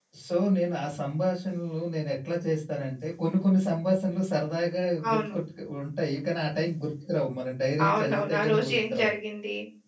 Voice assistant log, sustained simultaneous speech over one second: present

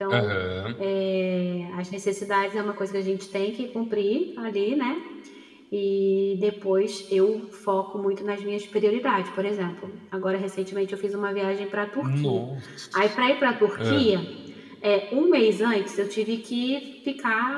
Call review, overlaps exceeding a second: none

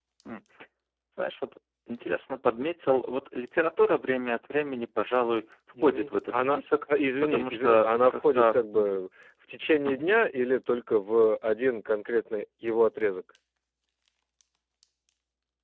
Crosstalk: present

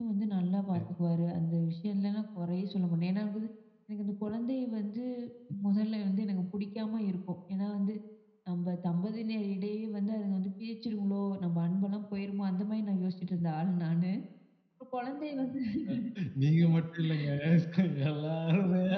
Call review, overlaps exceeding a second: none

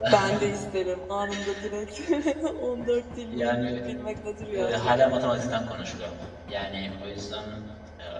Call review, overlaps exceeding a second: none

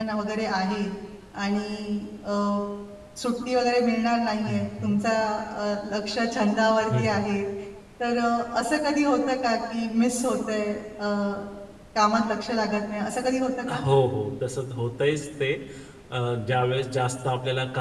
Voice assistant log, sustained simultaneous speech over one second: none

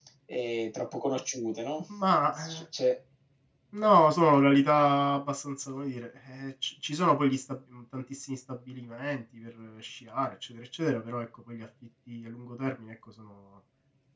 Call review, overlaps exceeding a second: none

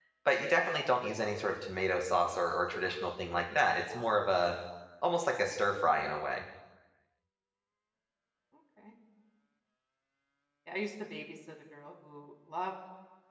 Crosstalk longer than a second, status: none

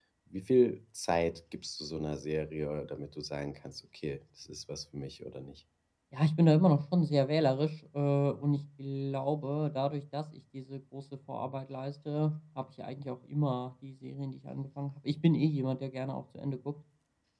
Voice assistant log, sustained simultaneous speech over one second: none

